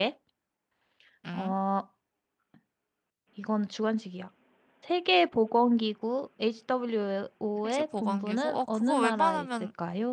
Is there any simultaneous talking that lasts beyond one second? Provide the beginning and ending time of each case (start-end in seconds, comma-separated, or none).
7.6-9.5